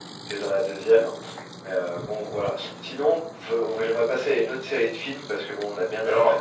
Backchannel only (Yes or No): Yes